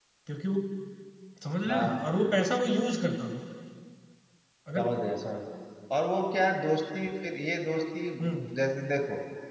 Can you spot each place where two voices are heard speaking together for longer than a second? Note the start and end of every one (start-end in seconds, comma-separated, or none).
none